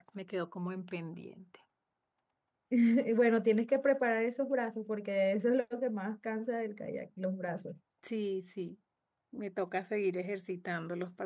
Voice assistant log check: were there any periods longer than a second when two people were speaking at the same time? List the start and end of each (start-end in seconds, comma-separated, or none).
none